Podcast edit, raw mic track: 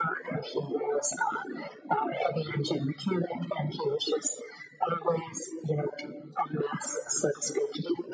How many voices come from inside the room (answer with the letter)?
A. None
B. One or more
A